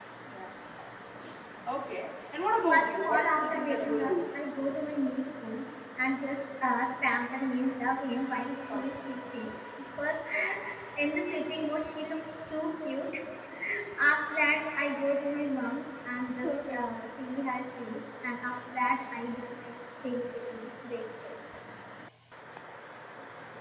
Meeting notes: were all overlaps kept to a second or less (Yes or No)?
No